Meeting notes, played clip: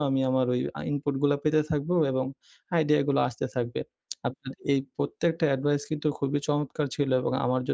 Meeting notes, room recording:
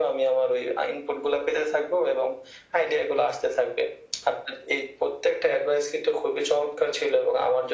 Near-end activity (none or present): none